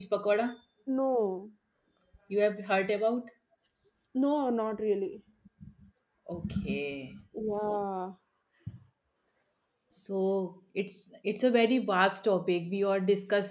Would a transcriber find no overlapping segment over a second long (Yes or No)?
Yes